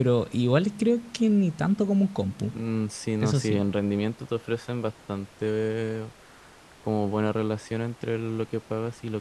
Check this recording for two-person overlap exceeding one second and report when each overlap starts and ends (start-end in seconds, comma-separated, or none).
none